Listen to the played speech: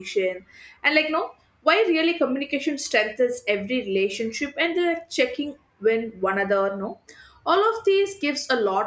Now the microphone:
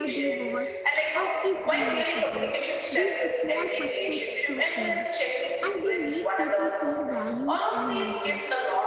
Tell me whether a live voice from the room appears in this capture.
Yes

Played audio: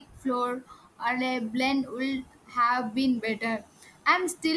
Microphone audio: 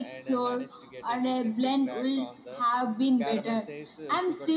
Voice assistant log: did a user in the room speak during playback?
Yes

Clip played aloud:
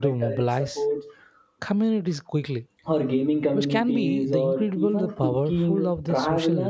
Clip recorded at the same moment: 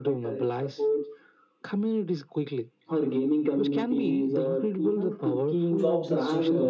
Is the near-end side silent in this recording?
No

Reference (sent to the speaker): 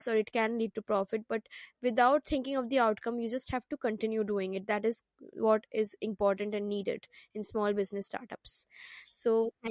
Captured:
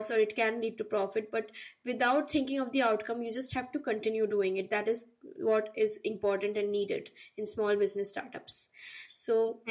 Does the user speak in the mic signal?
No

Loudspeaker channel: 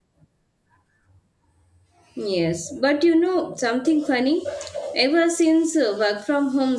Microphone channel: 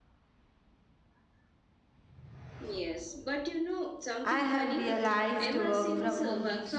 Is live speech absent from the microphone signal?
No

